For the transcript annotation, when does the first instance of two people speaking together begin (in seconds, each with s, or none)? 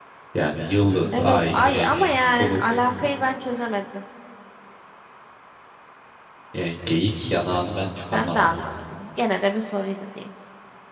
1.1 s